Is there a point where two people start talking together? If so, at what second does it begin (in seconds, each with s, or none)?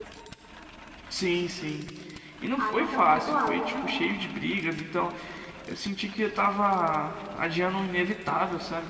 2.6 s